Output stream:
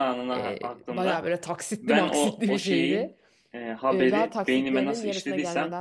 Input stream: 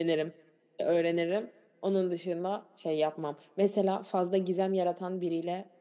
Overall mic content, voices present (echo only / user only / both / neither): user only